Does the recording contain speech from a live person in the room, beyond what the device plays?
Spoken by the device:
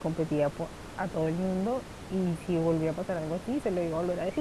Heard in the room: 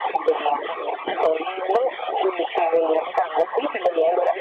No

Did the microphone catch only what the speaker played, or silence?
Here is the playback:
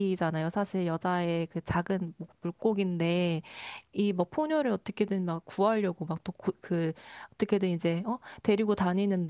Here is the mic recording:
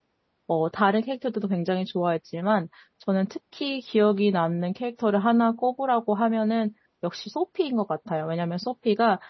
No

